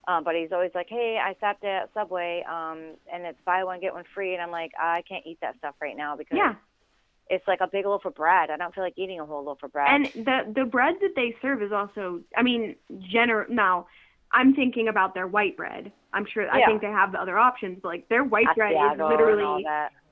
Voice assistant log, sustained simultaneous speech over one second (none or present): present